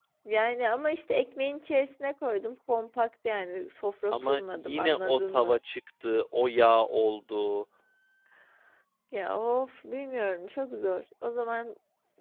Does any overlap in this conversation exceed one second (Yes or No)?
Yes